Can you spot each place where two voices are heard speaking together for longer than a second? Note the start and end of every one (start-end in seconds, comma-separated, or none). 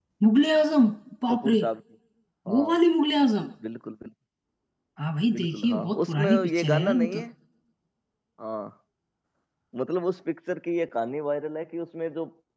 5.3-7.2